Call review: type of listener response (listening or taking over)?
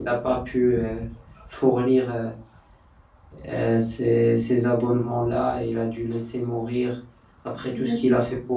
listening